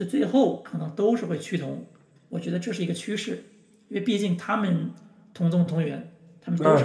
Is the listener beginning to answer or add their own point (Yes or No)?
Yes